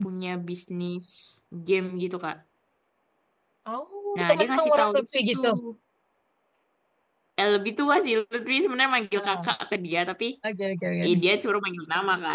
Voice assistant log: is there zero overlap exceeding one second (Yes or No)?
No